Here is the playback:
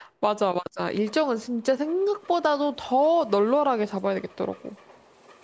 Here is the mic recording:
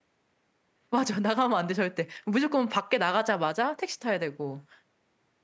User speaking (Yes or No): Yes